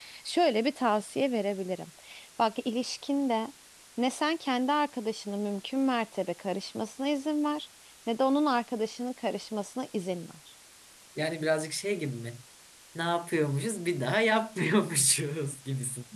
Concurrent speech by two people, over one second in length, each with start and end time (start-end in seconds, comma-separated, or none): none